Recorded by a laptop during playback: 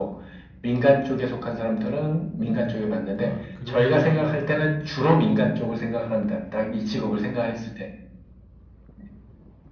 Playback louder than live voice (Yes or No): Yes